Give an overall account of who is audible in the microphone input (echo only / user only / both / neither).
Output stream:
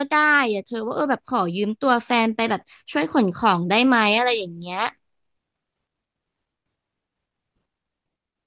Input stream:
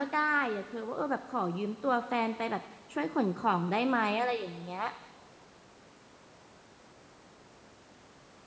echo only